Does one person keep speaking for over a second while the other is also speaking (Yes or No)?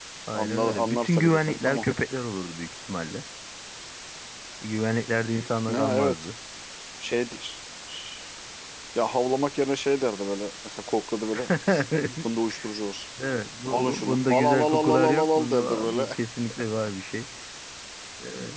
Yes